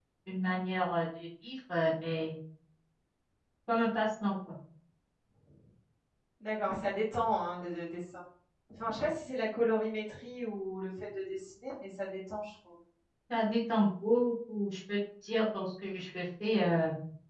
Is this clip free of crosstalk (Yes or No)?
Yes